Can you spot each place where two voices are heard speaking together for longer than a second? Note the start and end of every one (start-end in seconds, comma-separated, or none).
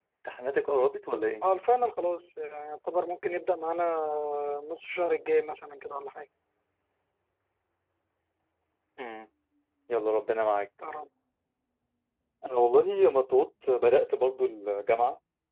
none